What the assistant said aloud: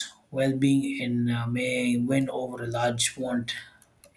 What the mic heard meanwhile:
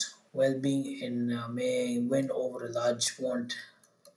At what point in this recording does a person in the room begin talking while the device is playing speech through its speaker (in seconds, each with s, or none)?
none